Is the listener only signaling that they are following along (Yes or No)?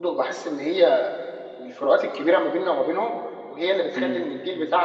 Yes